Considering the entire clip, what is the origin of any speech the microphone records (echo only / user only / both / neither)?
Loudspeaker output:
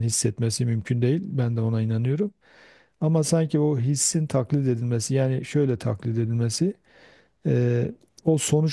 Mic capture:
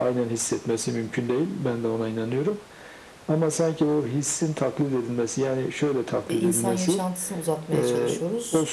both